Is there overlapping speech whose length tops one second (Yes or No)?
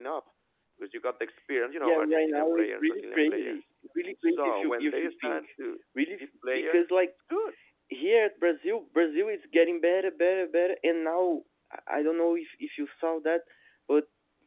Yes